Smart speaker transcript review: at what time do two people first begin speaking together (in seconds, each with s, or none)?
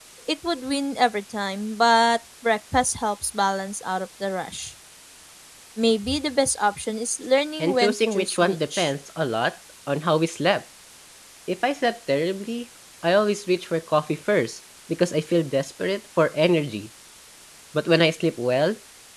7.6 s